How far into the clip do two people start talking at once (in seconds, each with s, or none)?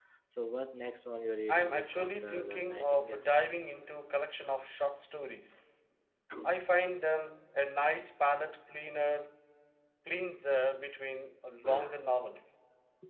1.5 s